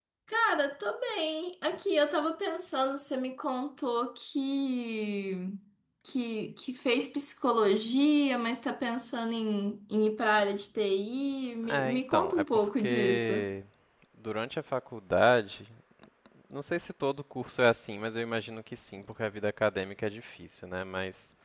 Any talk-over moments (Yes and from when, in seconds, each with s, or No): Yes, from 11.6 s